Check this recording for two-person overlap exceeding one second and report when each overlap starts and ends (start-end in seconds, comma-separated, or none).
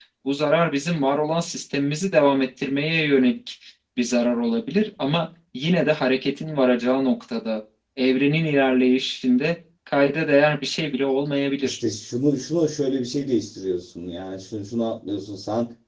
none